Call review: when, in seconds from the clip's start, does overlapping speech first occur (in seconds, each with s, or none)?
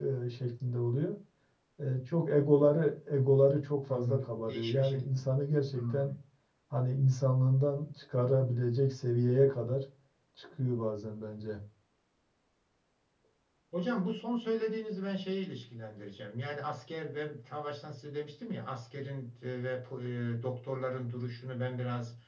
3.9 s